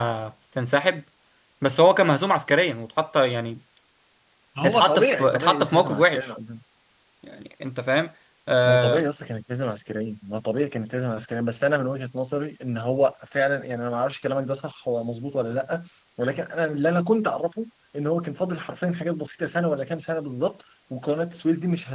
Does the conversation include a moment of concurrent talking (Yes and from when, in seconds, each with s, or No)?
Yes, from 4.6 s